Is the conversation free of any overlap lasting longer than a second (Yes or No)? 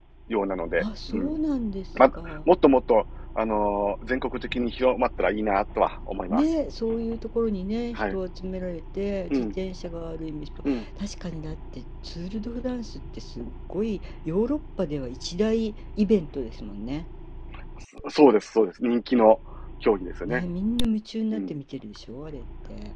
Yes